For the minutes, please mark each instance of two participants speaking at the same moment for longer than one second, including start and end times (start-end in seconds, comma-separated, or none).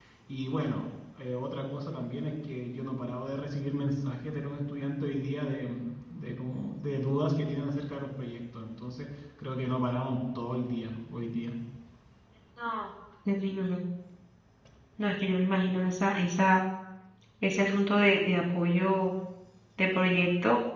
none